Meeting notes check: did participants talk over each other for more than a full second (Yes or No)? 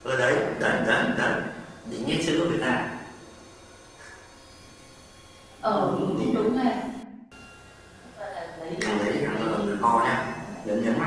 Yes